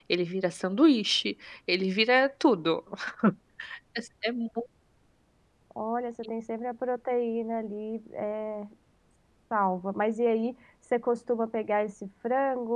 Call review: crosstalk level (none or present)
none